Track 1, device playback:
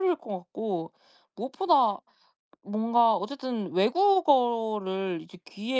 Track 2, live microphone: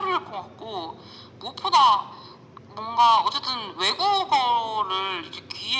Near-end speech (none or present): none